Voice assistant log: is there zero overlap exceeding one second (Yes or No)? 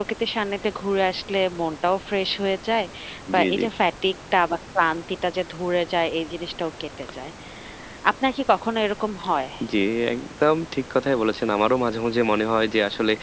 Yes